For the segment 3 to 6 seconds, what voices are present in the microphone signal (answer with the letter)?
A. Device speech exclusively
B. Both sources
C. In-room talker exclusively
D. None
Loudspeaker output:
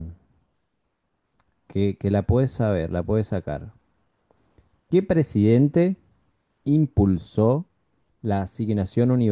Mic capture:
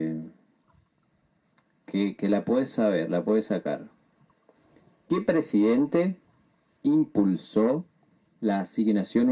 A